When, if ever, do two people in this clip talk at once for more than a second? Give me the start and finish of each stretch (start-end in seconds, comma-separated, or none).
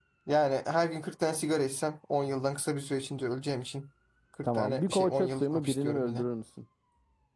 4.4-6.2